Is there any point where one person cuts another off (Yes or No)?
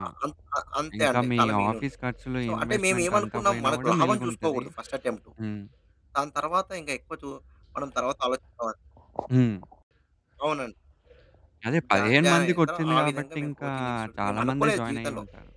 Yes